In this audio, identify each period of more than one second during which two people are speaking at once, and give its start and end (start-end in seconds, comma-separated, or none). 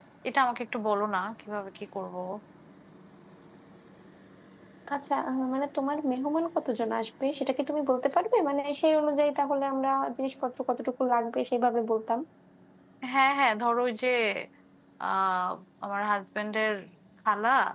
none